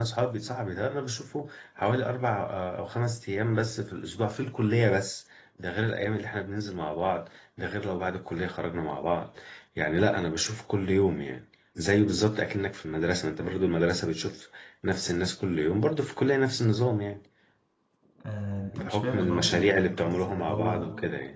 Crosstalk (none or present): present